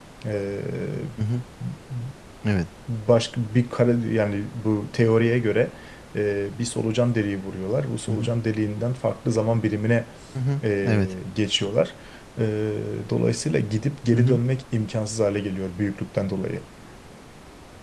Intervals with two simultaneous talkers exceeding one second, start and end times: none

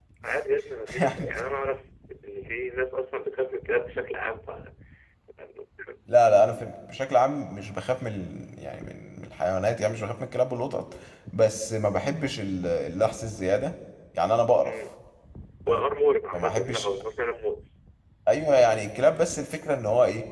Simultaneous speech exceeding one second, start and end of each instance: none

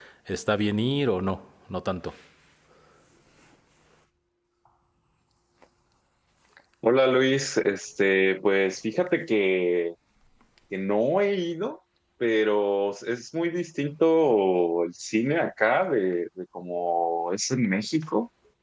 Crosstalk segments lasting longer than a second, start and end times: none

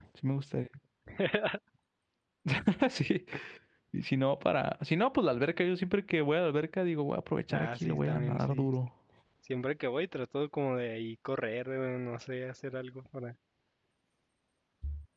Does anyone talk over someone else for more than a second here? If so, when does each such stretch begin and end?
7.5-8.7

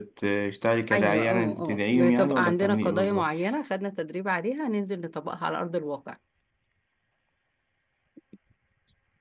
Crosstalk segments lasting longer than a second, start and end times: 0.9-3.2

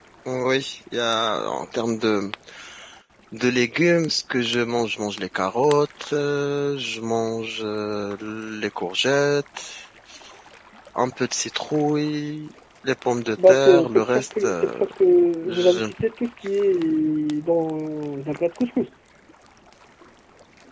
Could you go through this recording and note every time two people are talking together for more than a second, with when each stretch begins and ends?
13.5-14.8

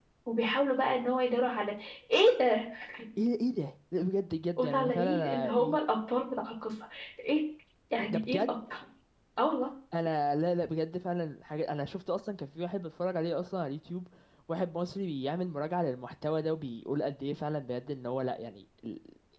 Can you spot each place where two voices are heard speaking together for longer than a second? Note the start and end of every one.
4.6-5.8

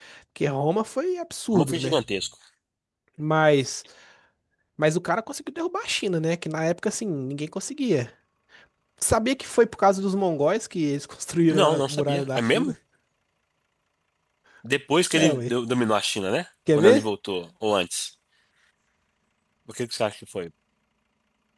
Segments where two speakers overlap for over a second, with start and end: 11.5-12.7

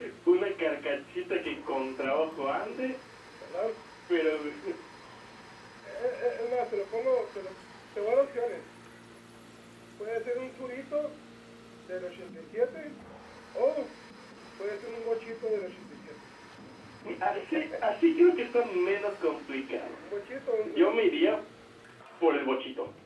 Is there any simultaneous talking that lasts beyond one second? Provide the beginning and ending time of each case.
none

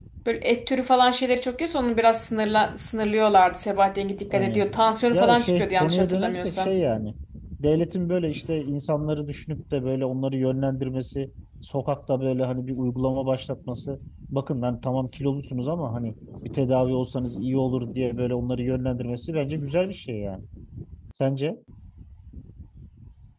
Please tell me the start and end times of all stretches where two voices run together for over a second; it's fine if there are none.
5.1-6.7

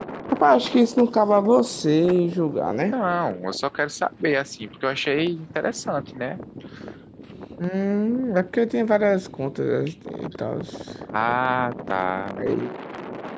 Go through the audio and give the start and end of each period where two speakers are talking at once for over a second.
none

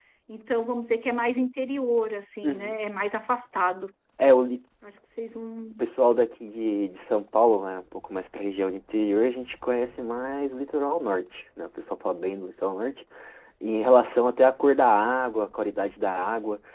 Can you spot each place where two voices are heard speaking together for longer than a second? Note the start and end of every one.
none

